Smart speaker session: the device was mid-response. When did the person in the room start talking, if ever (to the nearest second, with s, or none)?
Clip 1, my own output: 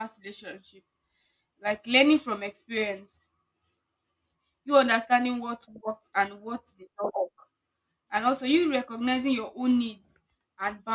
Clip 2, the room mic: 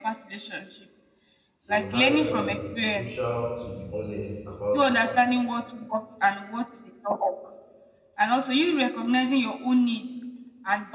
2 s